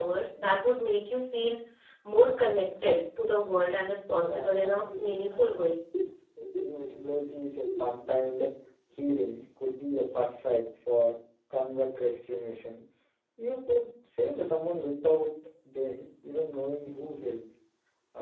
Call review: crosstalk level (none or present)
present